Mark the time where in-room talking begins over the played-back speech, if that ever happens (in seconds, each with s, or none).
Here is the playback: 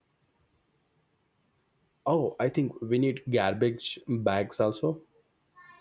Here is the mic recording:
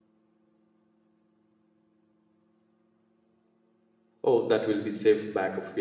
4.2 s